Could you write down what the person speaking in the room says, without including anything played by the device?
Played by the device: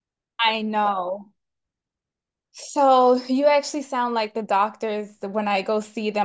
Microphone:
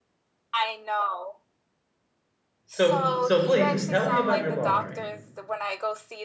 So, so please tell me about your laundry.

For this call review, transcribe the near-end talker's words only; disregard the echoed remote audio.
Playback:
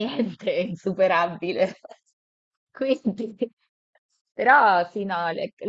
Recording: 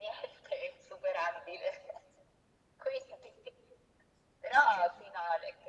none

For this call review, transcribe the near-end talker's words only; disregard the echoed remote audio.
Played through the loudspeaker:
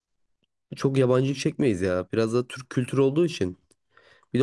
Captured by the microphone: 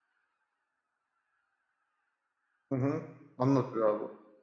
Hı hı. Anlatıyor abi.

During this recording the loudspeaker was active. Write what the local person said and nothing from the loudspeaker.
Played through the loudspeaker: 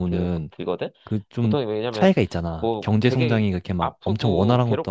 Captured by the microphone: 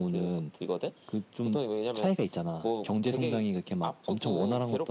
none

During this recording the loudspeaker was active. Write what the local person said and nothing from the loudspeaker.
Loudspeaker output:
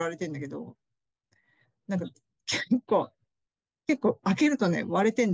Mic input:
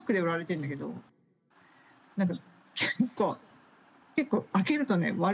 none

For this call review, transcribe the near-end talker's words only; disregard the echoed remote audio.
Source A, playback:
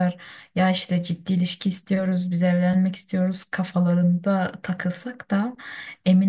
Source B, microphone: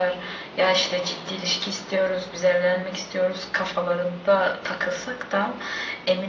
none

